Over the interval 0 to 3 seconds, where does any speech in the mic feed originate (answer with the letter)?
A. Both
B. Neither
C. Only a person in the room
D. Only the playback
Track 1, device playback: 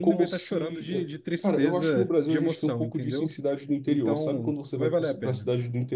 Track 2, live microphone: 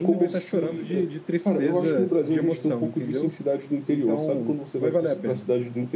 A